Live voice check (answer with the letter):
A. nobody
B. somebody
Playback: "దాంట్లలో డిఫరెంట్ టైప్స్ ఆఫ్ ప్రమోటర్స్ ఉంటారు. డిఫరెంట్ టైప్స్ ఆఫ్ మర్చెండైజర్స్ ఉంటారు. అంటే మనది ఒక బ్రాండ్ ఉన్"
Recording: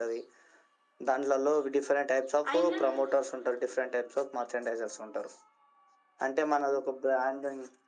B